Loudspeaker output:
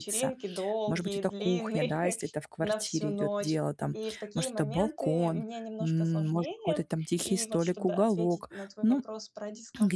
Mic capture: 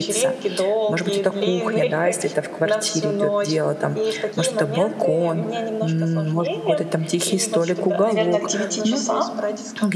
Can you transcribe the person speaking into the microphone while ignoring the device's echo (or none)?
наверно, к 9 часам.